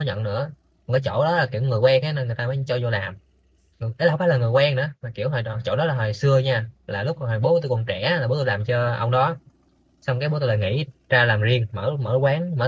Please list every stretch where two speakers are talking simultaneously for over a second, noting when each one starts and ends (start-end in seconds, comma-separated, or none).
none